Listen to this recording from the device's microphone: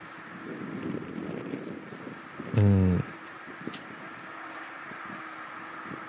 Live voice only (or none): 嗯